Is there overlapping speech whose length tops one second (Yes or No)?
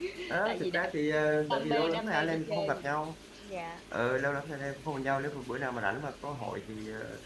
Yes